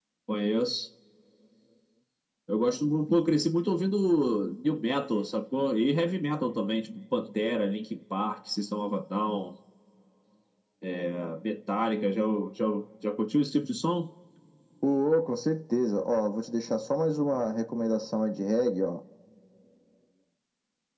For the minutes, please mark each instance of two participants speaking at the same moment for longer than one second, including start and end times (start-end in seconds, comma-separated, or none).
none